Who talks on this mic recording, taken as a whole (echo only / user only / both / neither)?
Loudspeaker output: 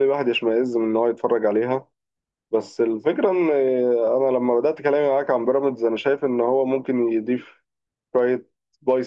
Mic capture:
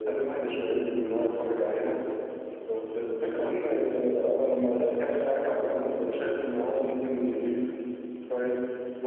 echo only